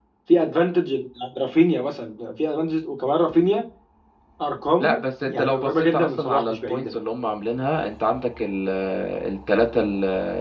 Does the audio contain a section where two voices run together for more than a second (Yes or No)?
Yes